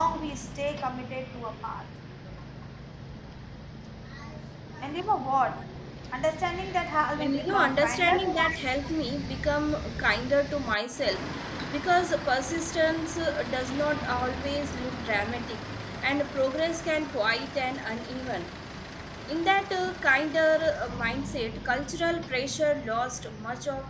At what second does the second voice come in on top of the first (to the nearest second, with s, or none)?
7 s